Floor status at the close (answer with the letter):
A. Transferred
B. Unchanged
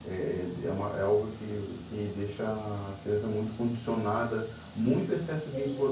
B